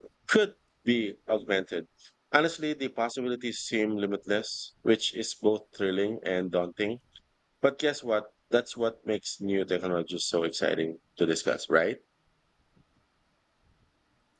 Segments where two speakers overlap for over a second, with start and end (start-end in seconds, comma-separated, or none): none